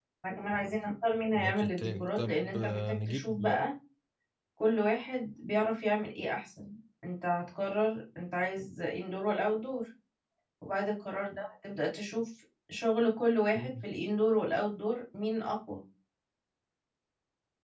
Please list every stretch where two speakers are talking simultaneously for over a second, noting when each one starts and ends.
1.3-3.4

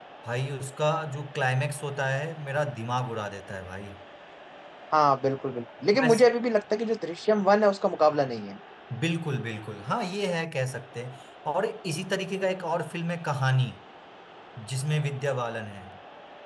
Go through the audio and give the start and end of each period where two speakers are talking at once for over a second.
none

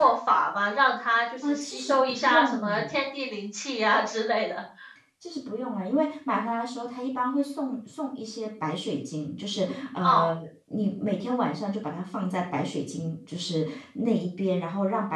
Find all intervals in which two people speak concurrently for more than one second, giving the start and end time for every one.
1.5-3.0

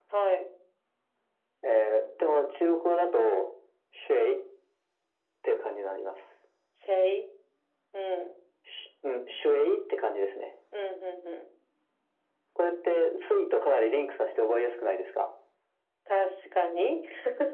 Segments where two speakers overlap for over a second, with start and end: none

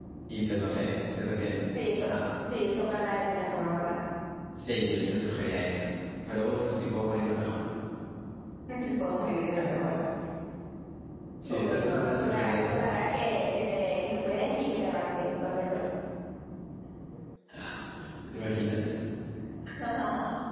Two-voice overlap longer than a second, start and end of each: 11.5-12.8

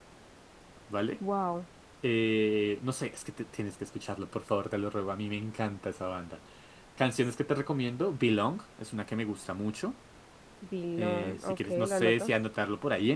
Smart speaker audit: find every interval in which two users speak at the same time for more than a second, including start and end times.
11.0-12.3

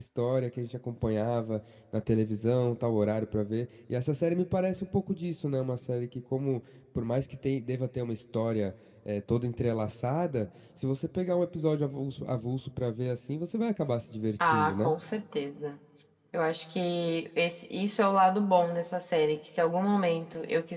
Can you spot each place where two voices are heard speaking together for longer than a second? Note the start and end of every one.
none

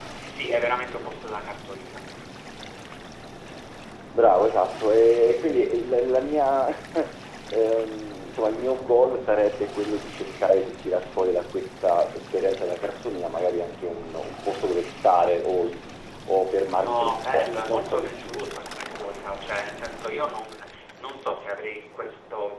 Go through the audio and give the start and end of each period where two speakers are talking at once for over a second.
16.8-18.4

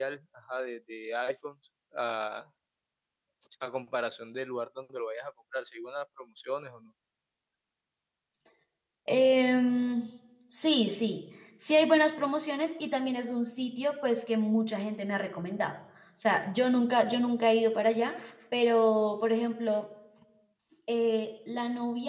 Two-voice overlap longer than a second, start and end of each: none

